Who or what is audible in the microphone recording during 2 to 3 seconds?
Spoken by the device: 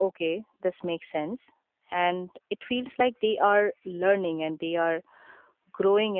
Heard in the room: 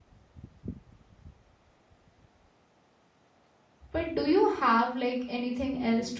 neither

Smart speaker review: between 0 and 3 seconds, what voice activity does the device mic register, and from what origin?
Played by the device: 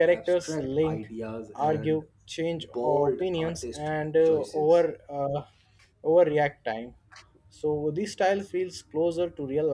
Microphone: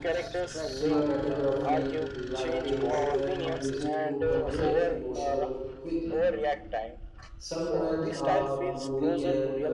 both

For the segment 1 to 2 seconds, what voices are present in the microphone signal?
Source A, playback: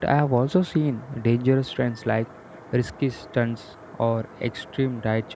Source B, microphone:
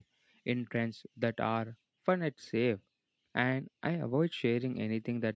user only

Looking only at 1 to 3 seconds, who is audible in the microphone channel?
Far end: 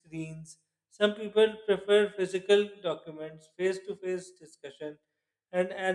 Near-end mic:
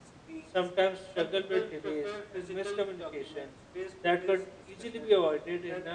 both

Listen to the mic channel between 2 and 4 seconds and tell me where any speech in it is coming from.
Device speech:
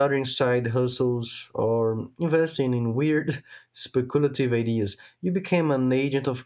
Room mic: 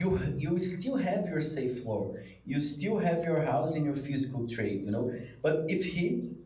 user only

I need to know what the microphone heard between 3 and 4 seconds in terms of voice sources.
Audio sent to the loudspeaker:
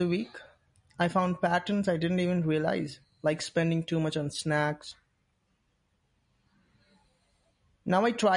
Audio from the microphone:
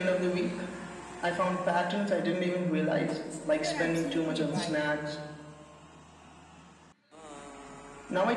both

